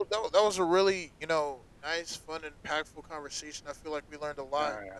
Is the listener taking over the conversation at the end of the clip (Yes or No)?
No